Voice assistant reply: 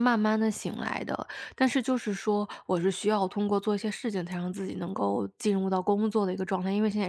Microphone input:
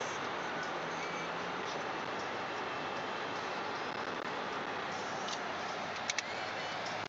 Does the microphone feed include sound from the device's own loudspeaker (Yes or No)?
No